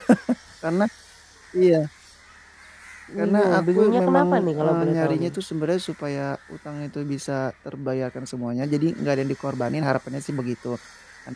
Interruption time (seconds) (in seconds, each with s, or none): 3.2 s